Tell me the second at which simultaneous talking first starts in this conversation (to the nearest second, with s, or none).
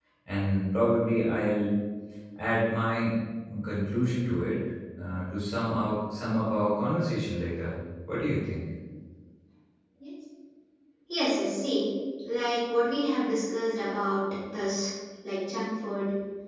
none